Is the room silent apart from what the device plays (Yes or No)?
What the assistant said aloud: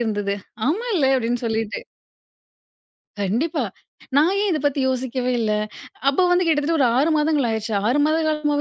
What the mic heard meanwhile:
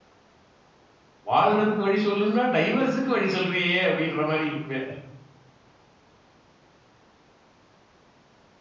No